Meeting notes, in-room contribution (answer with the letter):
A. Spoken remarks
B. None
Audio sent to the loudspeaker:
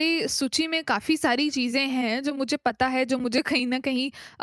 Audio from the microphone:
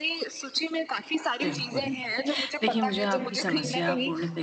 A